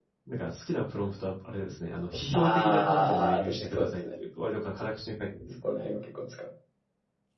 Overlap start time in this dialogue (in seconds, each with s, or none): 2.3 s